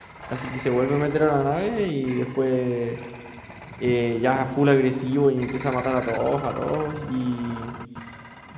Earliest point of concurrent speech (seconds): none

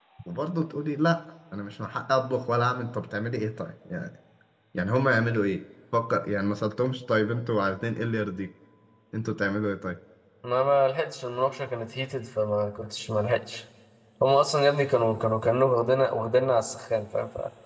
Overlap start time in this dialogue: none

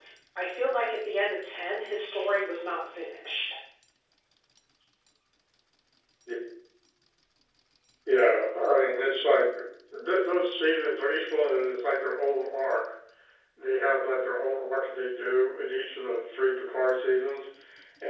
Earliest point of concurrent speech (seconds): none

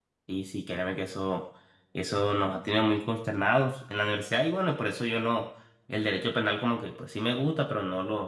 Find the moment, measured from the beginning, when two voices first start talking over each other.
none

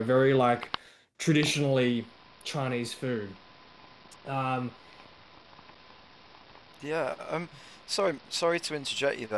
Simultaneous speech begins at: none

